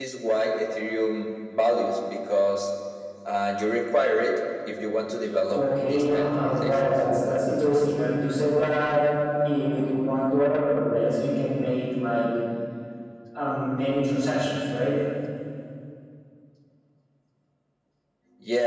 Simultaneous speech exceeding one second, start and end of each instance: 5.5-6.9

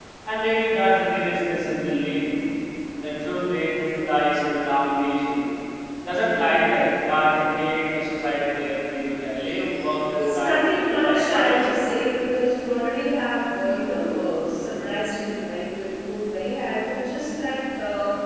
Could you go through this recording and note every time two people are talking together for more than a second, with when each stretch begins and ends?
10.2-11.8

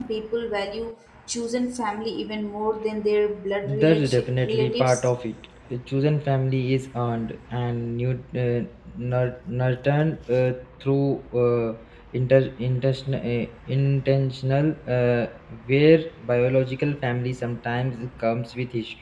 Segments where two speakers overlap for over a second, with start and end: 3.6-5.1

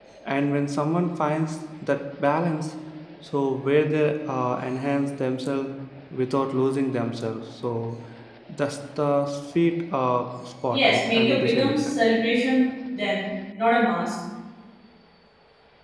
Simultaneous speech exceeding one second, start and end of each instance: 10.7-11.9

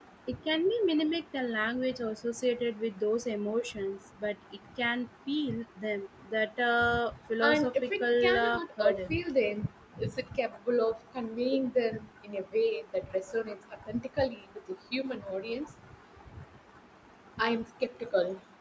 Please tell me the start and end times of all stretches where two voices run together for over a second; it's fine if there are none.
7.4-9.1

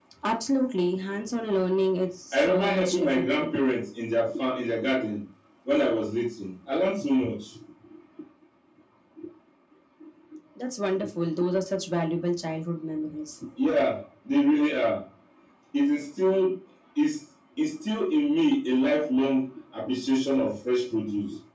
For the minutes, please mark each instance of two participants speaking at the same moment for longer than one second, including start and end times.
2.3-3.6

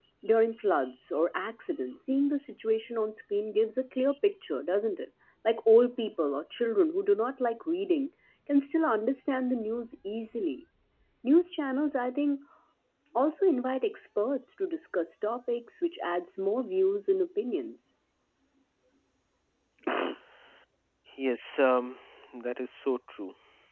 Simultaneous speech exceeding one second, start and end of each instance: none

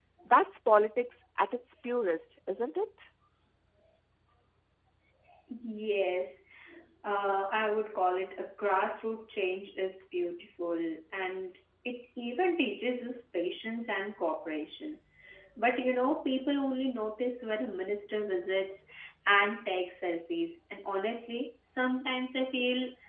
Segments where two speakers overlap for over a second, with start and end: none

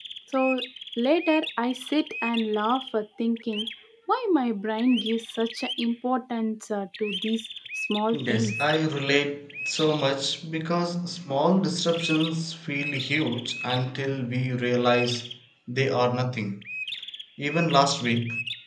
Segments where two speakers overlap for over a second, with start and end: none

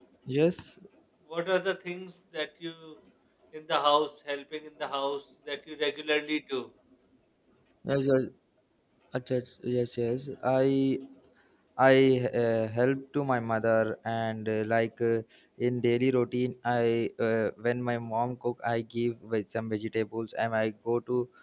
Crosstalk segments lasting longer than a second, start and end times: none

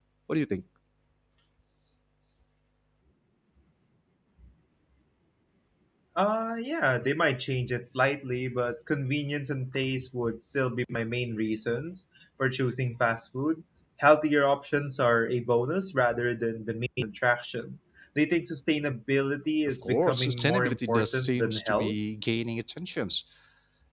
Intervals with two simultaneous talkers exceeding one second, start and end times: 19.7-22.0

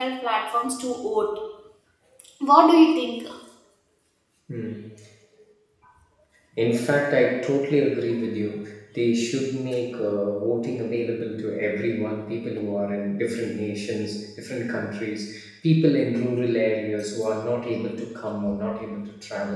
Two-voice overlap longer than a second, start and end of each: none

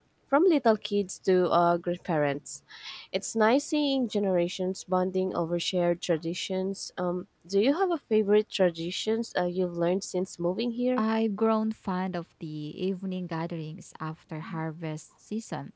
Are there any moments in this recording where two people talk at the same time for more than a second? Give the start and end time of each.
none

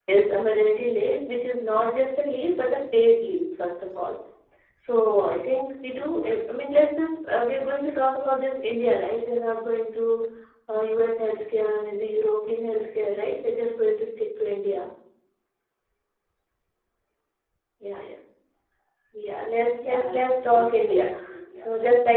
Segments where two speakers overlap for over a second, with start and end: 19.7-21.1

